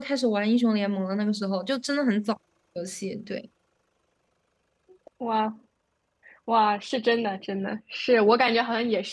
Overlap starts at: none

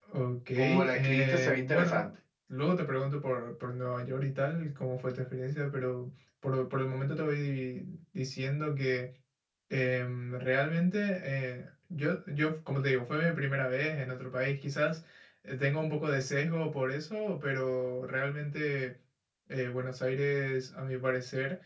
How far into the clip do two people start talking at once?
0.6 s

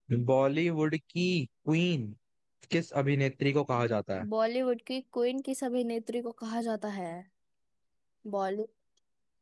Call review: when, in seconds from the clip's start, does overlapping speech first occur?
none

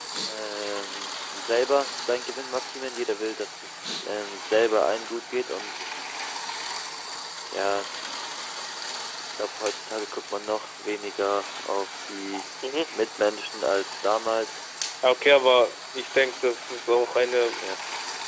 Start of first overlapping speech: none

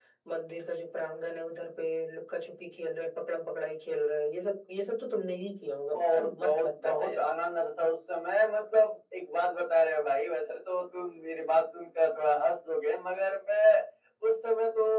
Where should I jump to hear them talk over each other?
5.9 s

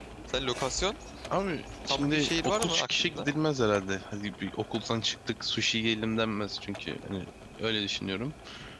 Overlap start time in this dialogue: 1.9 s

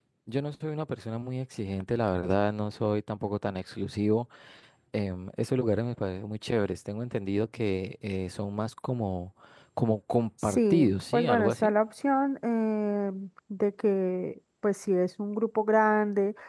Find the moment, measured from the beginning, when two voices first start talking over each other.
10.4 s

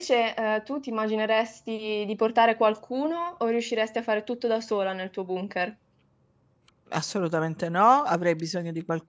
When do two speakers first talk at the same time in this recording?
none

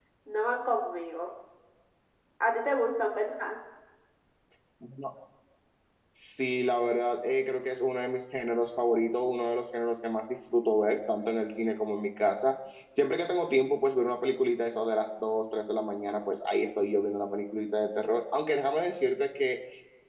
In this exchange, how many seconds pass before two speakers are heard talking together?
none

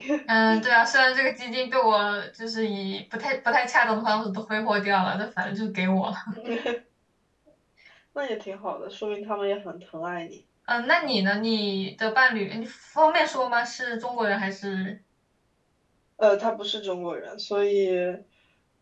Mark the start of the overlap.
none

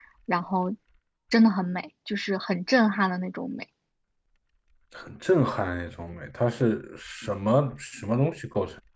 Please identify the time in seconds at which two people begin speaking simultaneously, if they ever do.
none

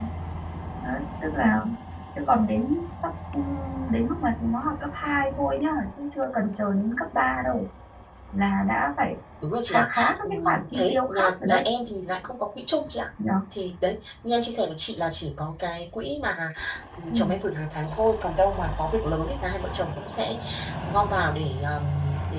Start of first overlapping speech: 9.7 s

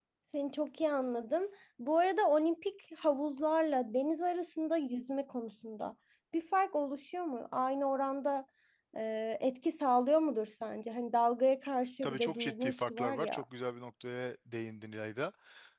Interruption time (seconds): 12.0 s

